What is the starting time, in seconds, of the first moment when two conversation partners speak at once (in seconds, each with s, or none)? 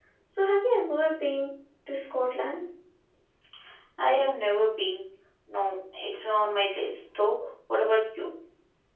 none